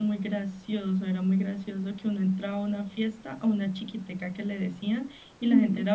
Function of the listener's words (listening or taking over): listening